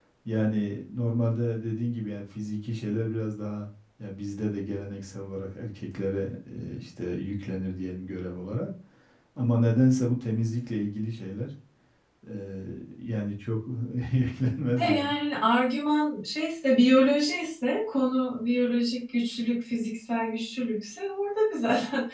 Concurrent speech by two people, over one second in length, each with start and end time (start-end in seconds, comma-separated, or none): none